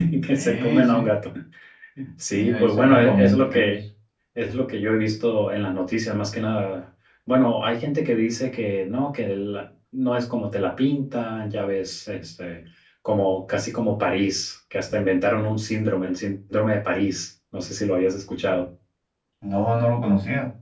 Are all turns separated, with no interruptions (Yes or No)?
No